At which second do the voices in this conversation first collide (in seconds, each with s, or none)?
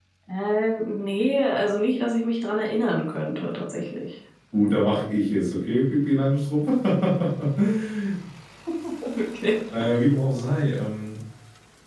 none